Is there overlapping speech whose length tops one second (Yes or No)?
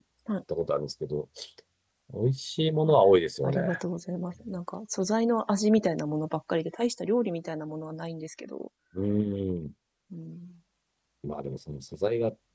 No